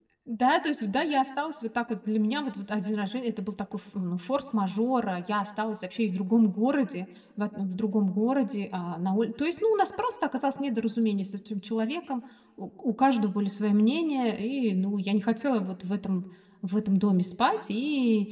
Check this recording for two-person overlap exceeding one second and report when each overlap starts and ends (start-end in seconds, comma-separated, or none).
none